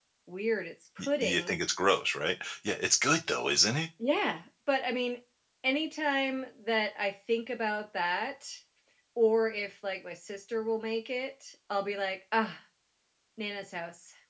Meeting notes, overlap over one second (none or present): none